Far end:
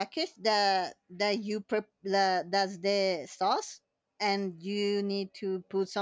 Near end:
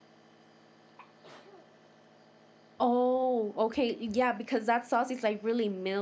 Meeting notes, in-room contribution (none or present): present